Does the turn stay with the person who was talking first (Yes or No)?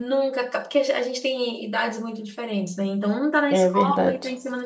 Yes